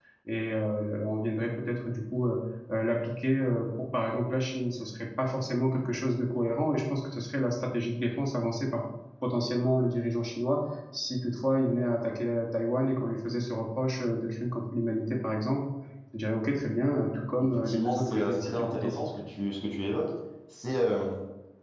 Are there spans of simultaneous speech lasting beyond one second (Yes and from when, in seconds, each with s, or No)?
Yes, from 17.4 s